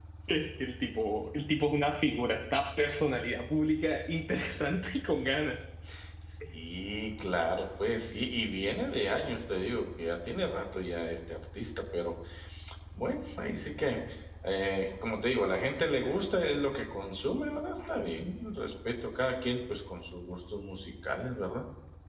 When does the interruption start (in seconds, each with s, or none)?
none